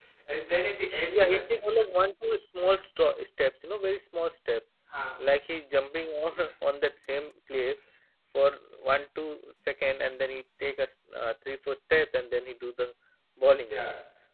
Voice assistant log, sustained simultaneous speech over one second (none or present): none